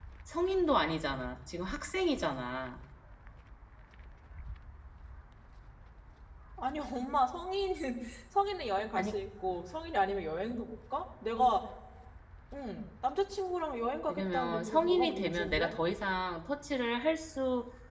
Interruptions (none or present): present